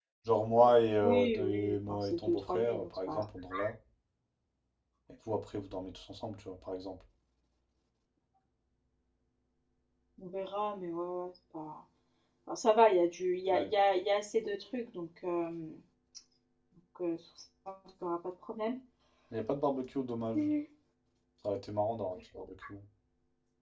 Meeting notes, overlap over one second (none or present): present